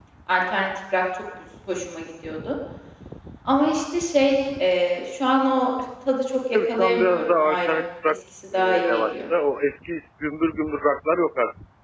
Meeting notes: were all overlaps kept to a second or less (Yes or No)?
No